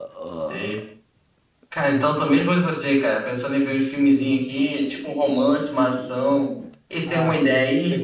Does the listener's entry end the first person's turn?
Yes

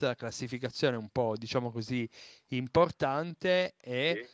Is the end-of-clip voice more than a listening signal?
No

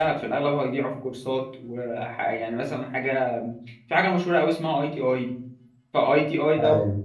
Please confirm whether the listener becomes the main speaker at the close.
No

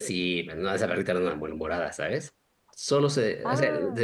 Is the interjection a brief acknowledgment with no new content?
Yes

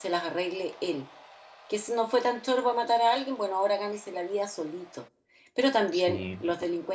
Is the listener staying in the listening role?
Yes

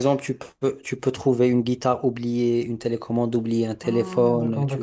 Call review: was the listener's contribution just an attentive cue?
No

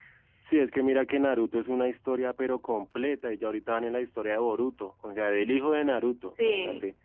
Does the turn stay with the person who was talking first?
Yes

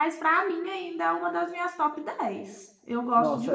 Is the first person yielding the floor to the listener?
Yes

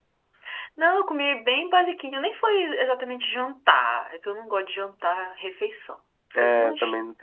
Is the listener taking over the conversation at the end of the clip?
Yes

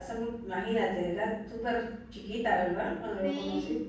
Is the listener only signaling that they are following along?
No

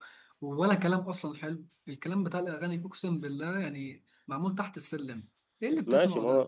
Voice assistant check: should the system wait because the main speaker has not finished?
No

